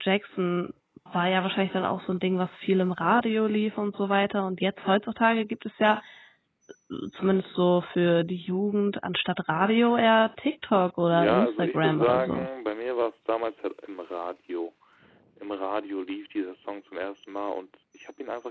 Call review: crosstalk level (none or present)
present